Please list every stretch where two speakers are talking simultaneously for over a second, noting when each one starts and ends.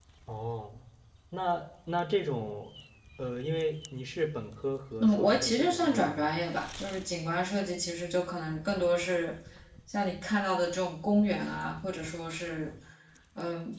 5.0-6.5

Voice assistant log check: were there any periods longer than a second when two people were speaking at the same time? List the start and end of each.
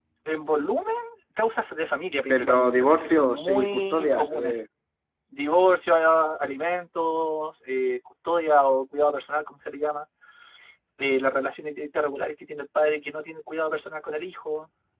2.3-4.6

